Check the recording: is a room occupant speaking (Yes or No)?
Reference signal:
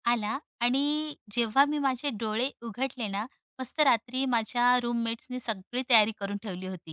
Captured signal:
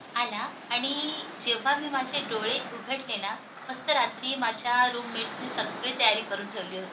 No